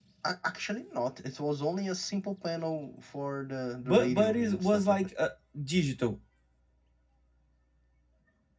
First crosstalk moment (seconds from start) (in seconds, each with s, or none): 3.8 s